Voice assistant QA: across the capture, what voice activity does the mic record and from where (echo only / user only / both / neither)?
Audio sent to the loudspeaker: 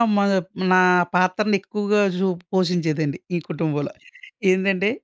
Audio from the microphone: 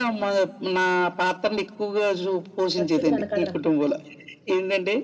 both